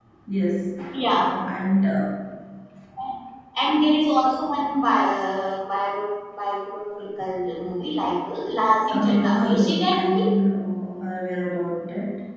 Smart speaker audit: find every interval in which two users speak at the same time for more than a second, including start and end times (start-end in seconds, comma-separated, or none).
8.9-10.2